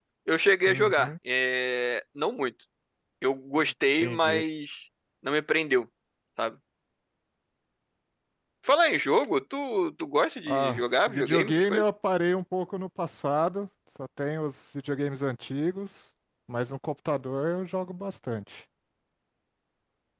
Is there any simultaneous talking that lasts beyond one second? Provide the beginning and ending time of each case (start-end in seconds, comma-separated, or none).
10.5-11.8